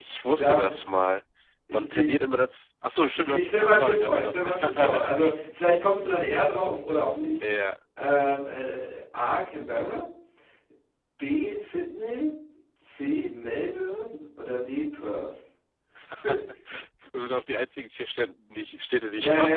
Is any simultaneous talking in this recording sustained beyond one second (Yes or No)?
Yes